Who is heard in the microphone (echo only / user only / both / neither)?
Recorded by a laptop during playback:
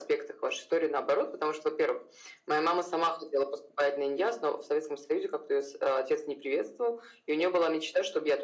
echo only